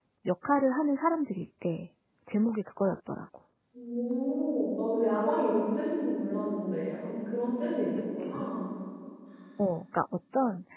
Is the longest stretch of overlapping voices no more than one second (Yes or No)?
Yes